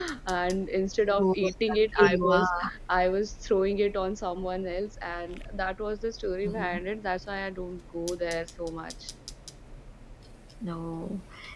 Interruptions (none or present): present